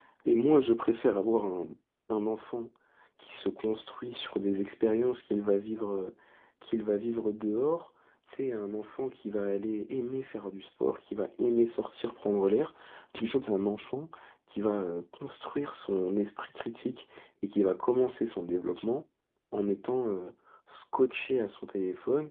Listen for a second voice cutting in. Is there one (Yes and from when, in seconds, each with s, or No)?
No